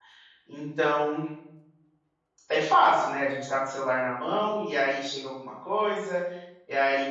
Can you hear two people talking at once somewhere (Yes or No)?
No